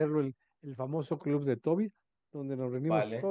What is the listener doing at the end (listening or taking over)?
listening